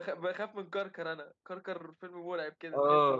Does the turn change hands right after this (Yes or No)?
Yes